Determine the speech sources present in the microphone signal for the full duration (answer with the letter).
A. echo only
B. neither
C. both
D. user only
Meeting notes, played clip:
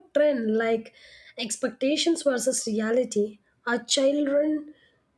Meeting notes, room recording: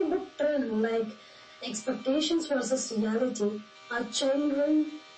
A